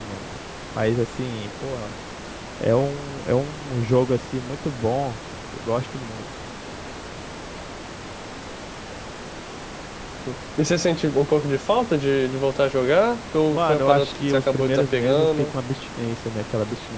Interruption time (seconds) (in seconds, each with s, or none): 13.5 s